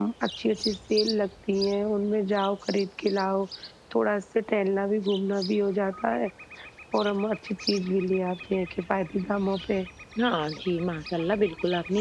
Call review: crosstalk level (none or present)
none